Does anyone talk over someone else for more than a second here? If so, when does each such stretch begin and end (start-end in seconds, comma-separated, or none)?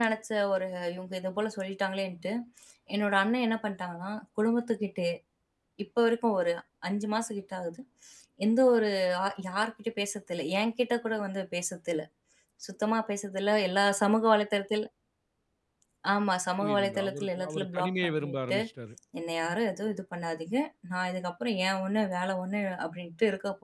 16.6-18.6